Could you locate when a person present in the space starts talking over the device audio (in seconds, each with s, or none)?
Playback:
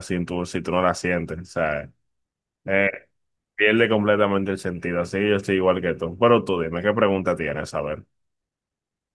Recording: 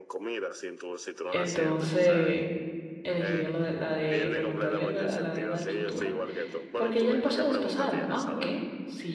1.3 s